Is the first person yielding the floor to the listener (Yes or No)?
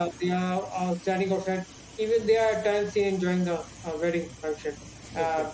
No